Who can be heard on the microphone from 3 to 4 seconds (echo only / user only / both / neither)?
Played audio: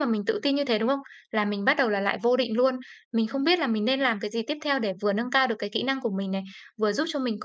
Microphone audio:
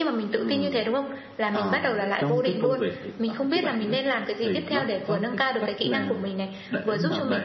both